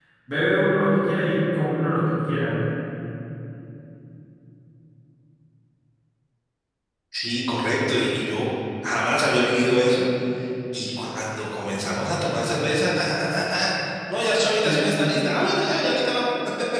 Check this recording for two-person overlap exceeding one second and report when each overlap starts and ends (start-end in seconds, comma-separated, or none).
none